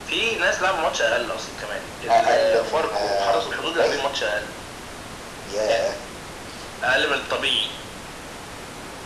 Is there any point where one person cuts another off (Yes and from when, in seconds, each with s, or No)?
Yes, from 2.1 s